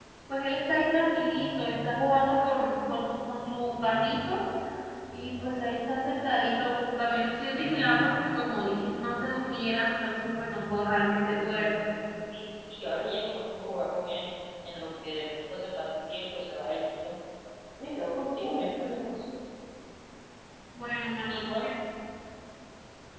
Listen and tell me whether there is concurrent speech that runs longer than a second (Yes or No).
No